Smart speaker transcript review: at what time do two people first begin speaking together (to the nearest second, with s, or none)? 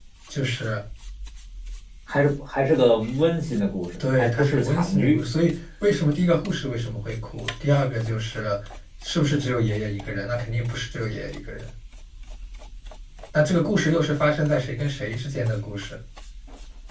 4 s